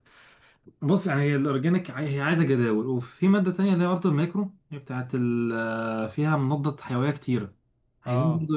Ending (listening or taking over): listening